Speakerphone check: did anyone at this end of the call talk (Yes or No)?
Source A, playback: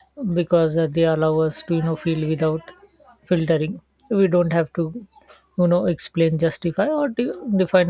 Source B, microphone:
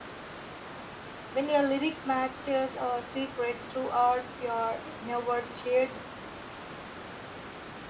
Yes